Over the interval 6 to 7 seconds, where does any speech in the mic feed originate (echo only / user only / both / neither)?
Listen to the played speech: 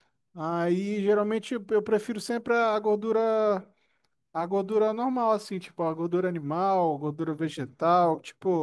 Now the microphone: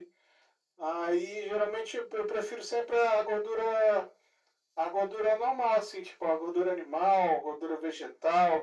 echo only